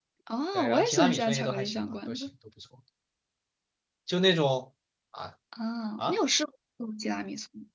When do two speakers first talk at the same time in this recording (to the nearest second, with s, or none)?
1 s